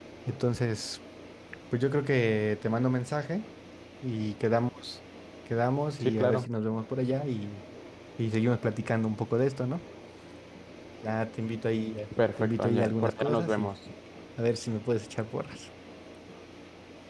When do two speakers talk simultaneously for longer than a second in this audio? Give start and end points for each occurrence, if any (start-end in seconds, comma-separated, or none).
12.4-13.7